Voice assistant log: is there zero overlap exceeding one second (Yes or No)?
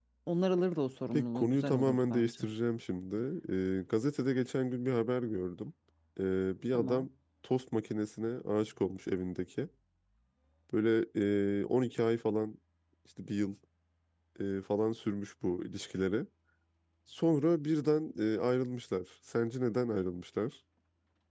No